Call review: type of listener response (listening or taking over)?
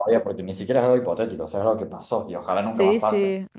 taking over